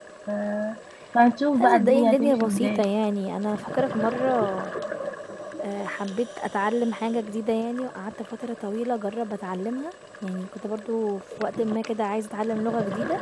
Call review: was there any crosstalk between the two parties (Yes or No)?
Yes